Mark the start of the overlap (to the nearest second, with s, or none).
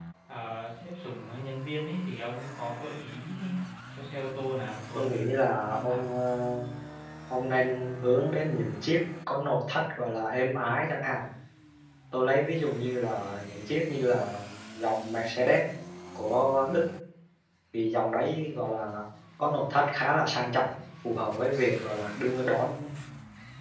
5 s